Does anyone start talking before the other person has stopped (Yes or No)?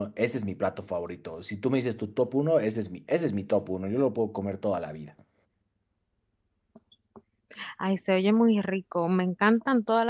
No